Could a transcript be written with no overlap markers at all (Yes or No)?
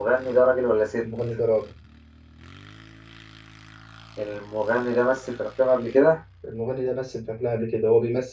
Yes